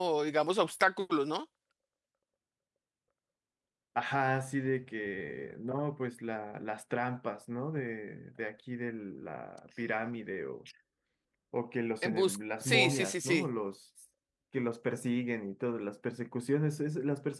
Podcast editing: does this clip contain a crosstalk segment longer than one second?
Yes, from 12.0 s

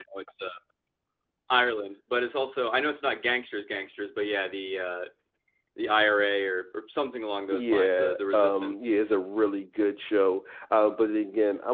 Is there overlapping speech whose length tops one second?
Yes, from 7.5 s

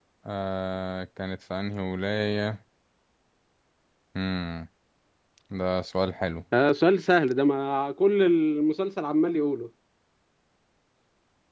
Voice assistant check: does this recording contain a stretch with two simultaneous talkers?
No

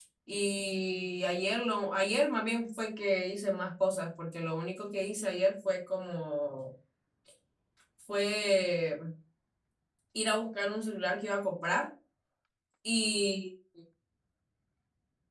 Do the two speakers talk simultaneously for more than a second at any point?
No

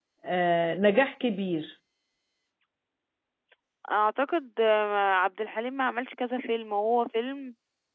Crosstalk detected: No

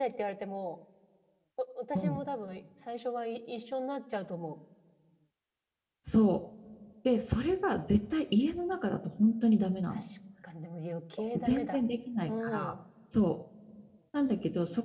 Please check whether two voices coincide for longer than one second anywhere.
No

